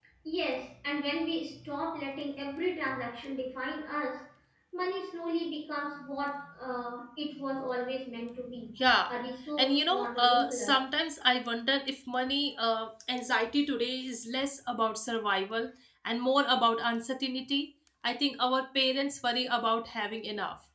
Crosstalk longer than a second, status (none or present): present